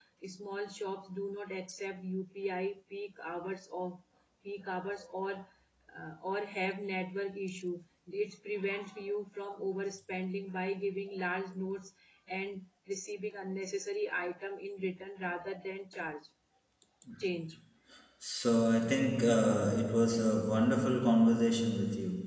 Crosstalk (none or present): none